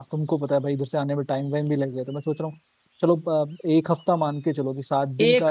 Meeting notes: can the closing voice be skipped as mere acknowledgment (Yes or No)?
No